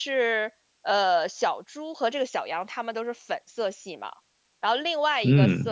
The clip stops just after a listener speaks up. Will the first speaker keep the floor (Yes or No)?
Yes